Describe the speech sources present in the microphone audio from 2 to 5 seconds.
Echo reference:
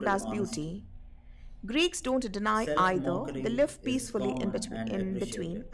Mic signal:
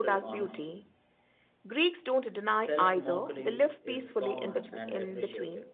echo only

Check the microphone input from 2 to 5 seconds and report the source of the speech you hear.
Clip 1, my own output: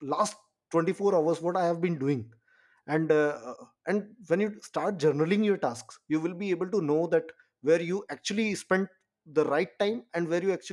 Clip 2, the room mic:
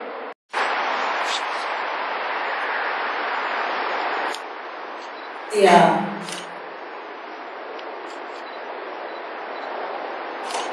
neither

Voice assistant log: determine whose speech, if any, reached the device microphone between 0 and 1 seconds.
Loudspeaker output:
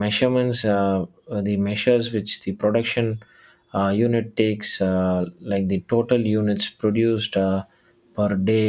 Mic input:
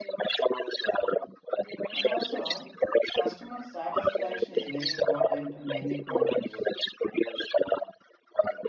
echo only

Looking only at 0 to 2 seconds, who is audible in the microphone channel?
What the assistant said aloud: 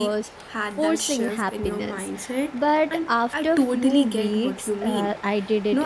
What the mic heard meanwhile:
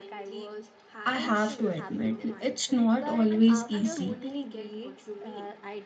both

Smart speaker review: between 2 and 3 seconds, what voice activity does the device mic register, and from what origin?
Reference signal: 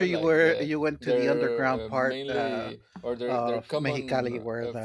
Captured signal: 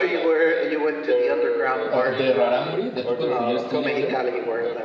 both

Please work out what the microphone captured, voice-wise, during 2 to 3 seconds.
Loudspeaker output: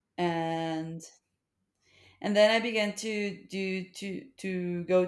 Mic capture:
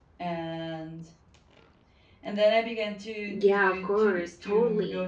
echo only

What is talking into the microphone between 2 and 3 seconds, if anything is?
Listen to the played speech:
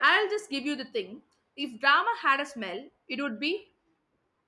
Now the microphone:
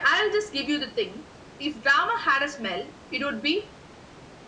echo only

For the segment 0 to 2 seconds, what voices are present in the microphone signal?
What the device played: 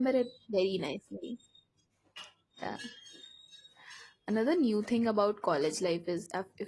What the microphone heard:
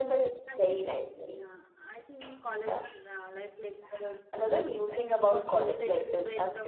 both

